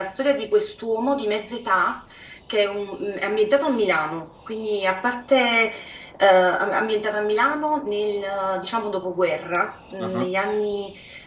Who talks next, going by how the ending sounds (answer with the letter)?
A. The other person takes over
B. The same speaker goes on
B